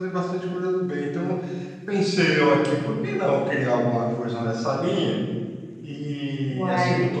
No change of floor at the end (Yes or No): Yes